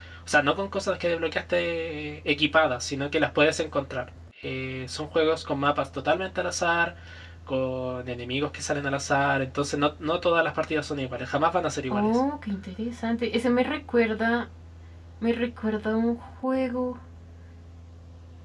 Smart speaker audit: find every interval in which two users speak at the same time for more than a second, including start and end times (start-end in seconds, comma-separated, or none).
none